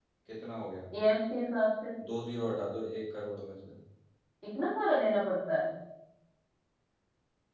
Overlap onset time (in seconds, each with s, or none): none